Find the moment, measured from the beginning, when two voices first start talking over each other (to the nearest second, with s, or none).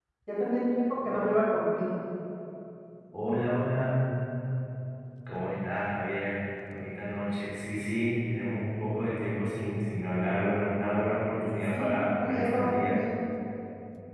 11 s